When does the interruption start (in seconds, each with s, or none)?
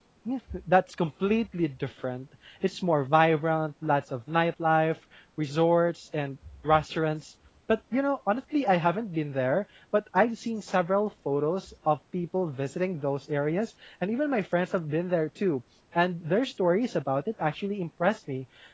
none